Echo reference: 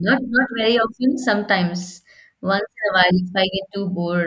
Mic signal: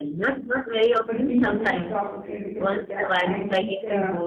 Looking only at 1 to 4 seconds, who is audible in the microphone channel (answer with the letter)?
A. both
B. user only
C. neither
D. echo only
A